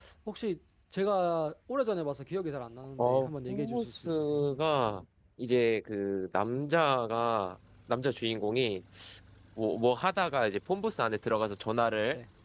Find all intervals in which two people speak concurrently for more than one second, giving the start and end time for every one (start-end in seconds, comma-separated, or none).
3.0-4.4